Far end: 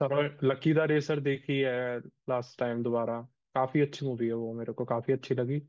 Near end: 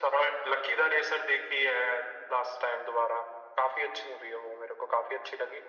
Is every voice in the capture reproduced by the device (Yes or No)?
Yes